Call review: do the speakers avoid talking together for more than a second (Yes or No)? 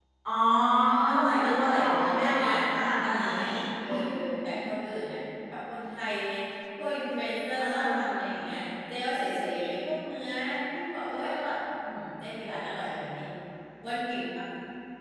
No